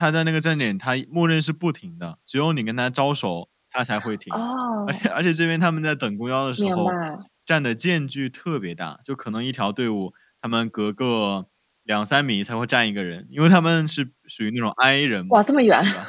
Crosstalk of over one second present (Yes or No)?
No